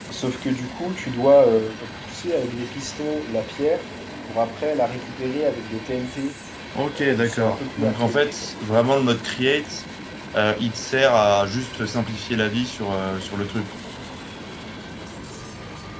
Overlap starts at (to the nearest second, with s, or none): 7 s